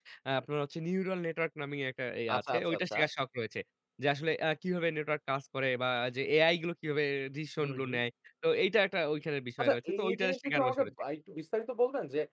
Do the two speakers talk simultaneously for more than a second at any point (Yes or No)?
Yes